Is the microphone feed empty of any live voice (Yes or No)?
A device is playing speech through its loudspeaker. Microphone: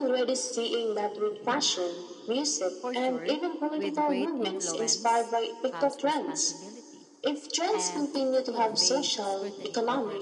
No